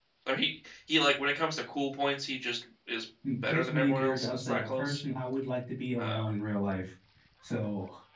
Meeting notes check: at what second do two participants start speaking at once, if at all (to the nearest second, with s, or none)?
3 s